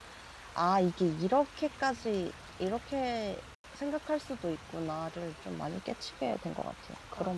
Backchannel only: No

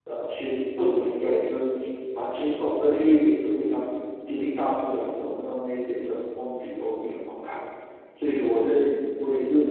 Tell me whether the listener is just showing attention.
Yes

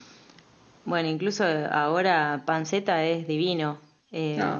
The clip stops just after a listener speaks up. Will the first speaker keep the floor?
Yes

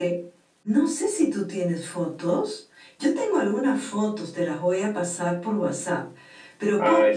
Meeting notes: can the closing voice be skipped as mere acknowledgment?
Yes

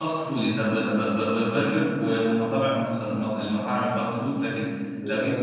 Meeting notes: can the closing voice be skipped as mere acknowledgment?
Yes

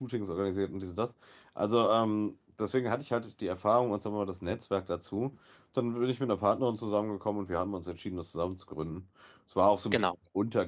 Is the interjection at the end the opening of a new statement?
No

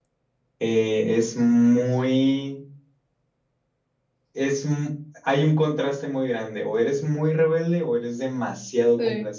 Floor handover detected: No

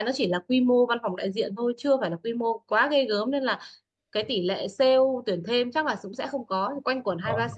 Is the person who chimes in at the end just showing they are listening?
Yes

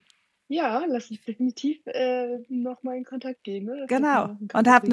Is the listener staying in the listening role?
No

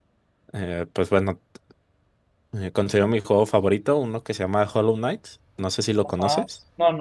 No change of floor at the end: No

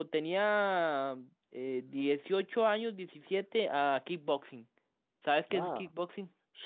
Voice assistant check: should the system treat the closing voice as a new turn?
Yes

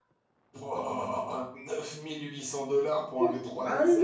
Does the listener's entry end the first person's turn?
Yes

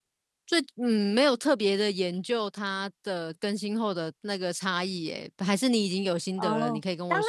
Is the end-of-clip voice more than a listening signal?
Yes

